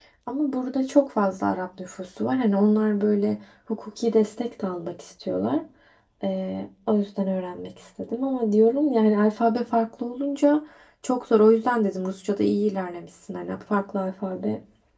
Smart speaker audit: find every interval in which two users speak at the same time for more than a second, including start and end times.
none

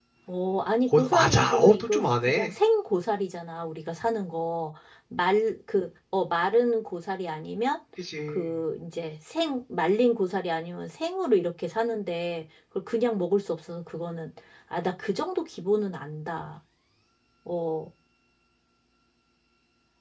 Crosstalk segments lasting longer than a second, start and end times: 0.9-2.5

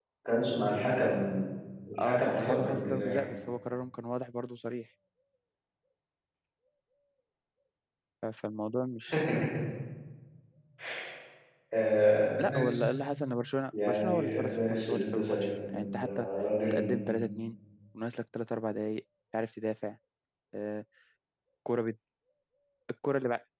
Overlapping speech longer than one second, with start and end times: 2.0-3.3, 13.8-16.0

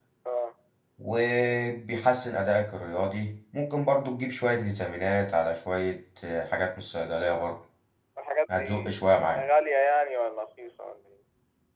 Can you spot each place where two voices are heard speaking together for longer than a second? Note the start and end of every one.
none

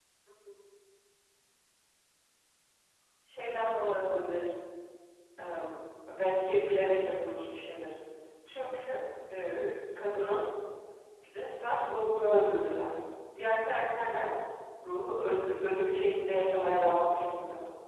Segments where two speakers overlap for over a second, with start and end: none

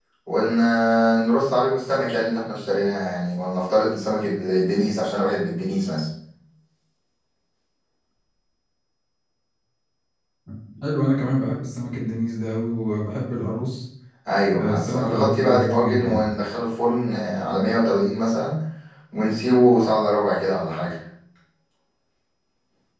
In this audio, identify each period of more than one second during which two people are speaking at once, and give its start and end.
14.5-16.3

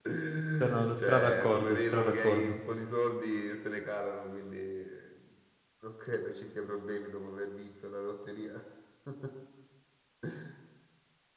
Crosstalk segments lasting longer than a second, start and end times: 0.6-2.6

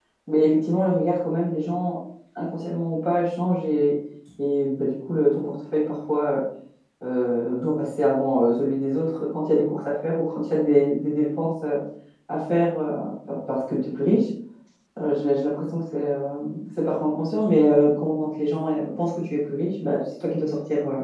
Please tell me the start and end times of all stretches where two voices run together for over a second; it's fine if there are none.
none

